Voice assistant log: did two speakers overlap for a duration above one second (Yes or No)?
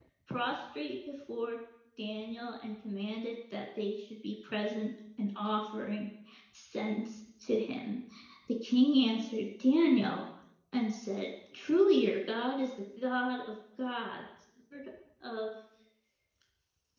No